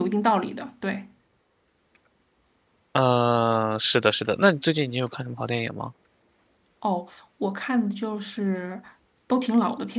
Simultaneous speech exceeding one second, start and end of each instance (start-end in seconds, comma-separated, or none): none